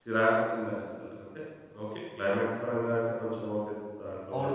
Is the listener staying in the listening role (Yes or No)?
No